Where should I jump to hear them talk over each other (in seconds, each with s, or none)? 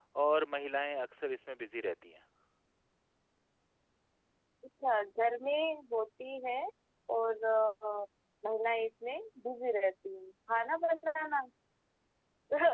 none